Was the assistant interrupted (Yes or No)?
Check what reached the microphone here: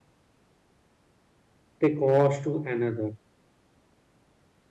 Yes